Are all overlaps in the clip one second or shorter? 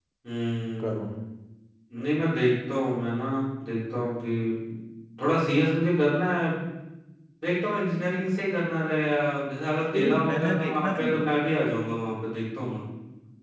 No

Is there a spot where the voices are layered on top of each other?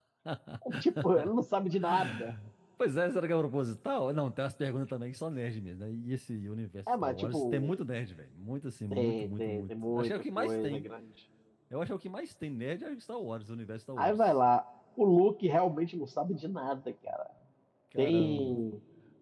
Yes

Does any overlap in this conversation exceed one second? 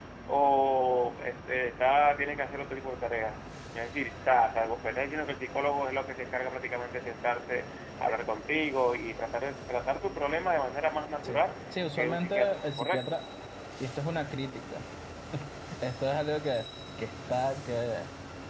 Yes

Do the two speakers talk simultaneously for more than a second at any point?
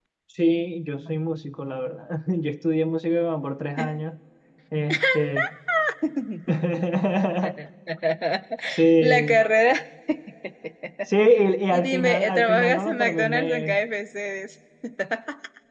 Yes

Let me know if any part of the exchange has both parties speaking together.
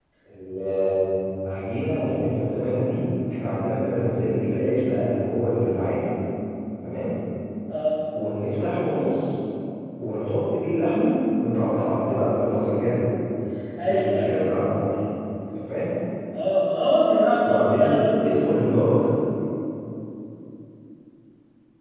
Yes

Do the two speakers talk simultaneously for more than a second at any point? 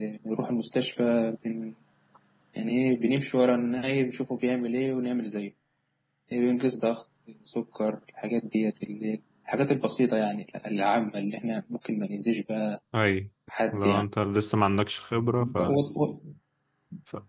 No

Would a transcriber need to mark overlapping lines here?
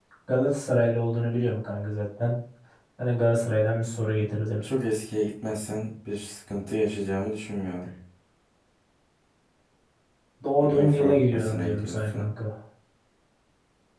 Yes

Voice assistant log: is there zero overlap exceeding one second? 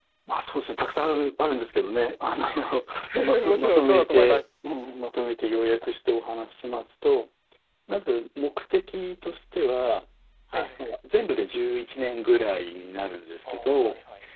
No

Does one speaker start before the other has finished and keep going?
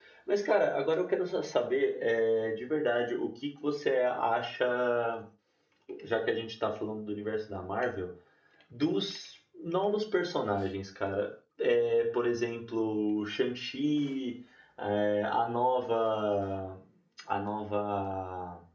No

